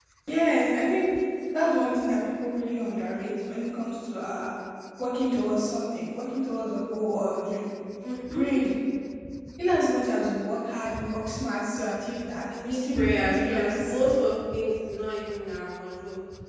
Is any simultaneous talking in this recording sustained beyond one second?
Yes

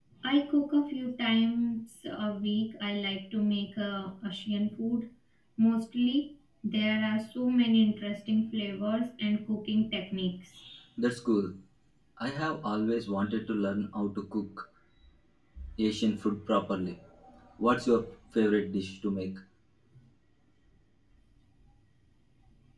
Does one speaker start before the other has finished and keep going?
No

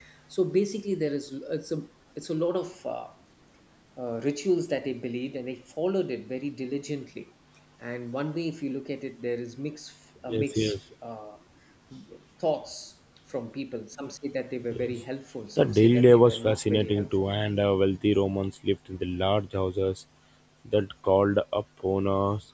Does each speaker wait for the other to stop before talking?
No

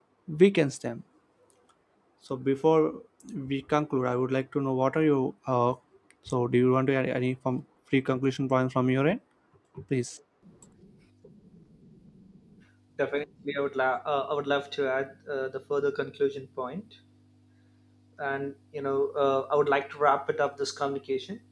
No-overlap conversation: Yes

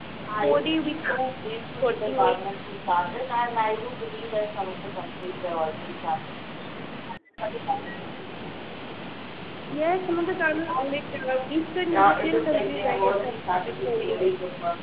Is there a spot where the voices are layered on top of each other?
Yes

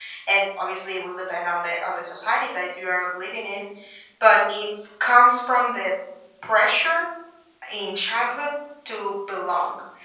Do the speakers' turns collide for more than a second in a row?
No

